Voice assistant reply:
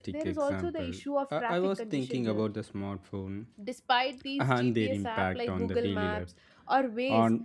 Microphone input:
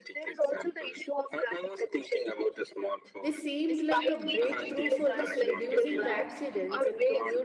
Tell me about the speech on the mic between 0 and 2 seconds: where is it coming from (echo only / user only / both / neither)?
echo only